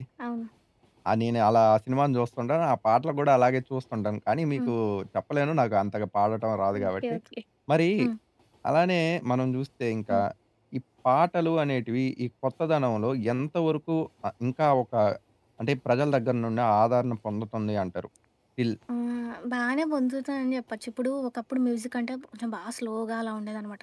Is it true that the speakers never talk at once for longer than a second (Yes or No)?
Yes